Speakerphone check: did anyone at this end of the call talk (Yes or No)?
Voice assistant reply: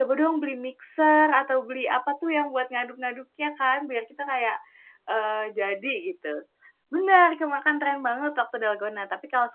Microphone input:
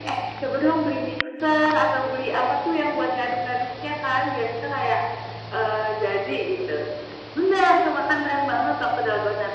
No